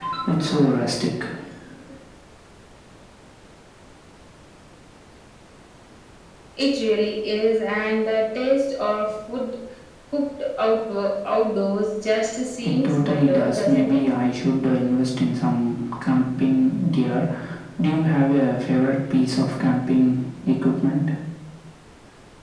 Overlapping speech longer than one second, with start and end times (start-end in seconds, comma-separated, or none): 12.6-14.1